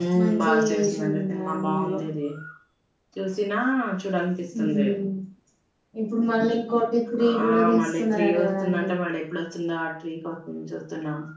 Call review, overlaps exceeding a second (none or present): present